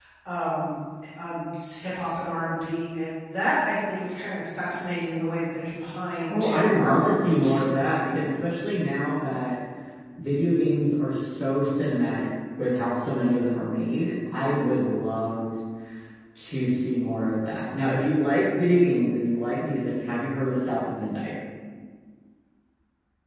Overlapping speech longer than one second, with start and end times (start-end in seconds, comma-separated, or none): 6.3-7.6